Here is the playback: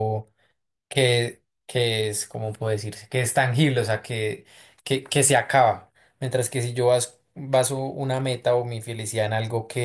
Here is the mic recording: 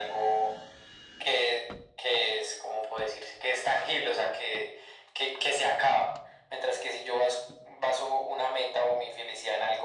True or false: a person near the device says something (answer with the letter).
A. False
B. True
A